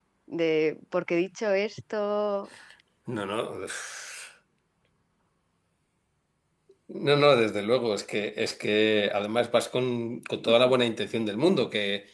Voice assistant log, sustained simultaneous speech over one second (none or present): none